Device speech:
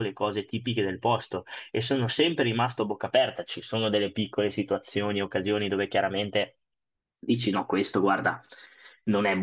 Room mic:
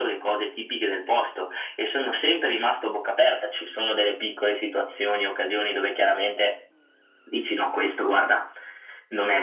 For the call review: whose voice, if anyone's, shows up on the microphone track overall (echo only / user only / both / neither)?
echo only